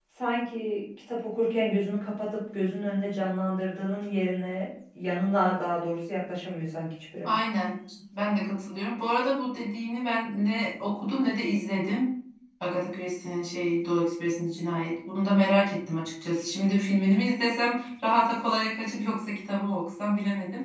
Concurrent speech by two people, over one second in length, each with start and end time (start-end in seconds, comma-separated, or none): none